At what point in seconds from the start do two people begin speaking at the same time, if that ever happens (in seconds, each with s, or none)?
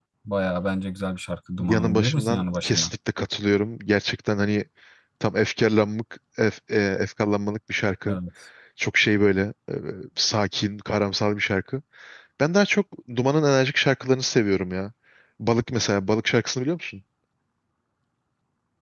1.6 s